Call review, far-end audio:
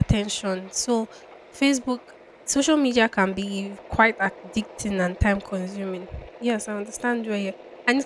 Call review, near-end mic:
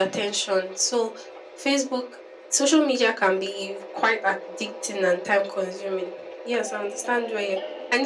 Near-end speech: present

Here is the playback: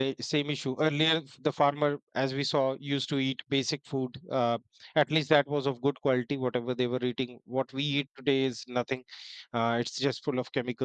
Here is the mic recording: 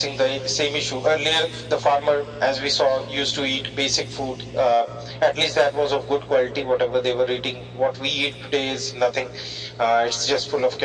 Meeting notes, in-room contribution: none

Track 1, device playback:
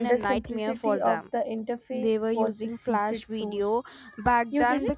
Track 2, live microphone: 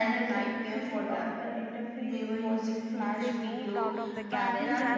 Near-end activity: present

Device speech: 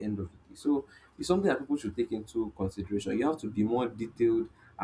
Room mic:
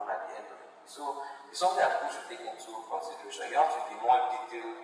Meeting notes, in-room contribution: none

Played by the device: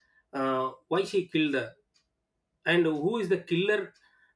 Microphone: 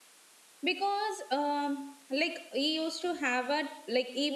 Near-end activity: present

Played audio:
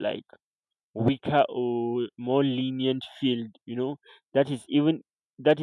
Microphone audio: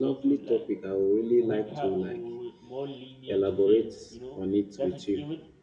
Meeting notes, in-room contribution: present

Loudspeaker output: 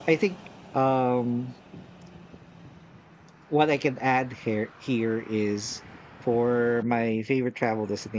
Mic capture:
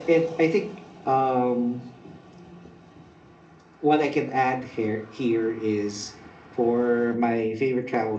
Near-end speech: none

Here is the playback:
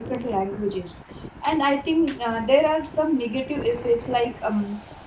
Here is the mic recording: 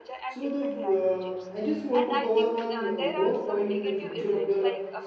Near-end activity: present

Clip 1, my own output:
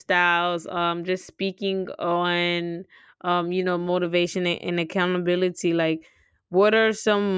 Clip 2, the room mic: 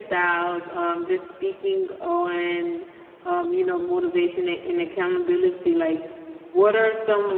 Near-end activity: none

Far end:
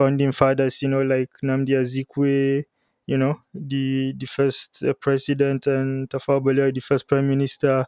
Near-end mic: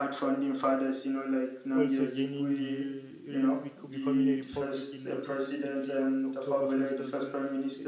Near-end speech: present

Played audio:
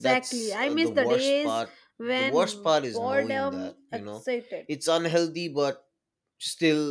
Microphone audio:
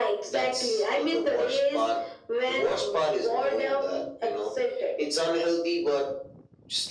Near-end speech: none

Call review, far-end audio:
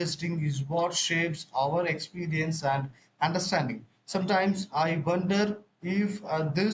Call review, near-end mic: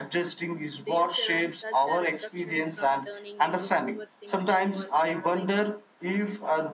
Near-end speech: present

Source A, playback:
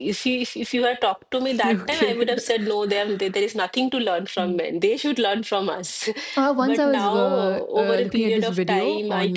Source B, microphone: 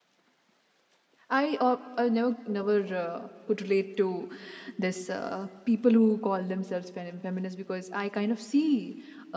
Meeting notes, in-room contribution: present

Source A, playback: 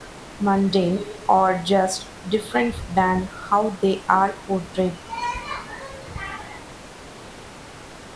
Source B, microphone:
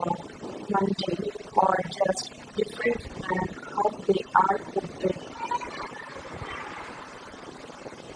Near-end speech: none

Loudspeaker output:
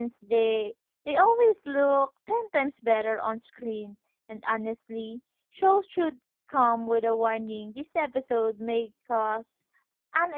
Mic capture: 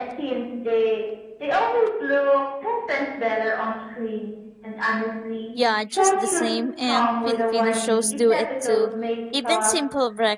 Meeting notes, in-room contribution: present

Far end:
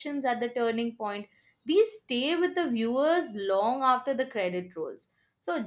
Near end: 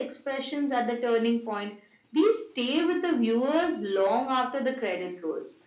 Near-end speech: none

